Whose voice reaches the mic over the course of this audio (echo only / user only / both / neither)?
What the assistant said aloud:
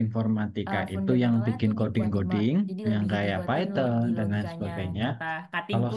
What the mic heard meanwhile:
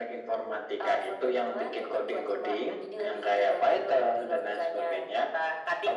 echo only